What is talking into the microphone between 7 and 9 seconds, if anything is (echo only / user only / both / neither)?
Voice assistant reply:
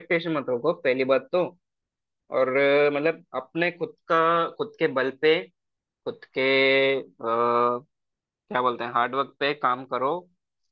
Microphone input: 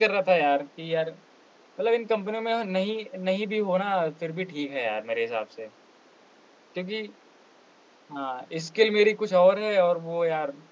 user only